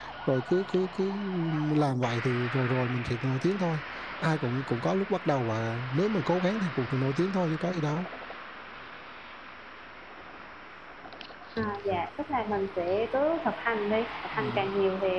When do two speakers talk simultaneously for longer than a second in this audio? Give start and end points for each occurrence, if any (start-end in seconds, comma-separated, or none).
none